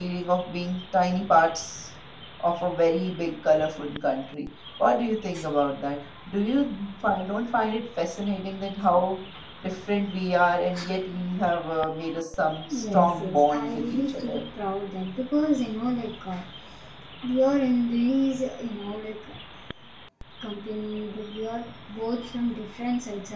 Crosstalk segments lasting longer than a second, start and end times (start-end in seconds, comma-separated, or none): 12.8-14.4